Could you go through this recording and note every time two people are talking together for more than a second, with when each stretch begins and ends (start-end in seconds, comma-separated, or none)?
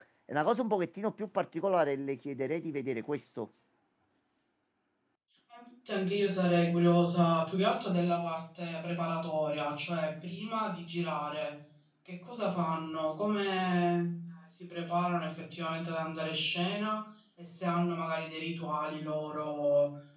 none